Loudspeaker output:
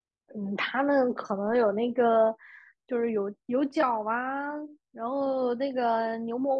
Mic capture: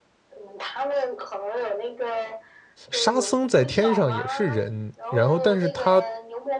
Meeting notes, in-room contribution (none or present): present